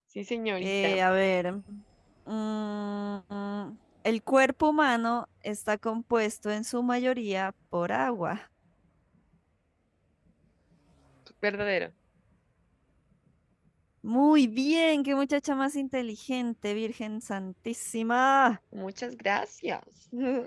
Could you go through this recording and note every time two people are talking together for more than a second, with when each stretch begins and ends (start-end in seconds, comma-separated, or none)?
none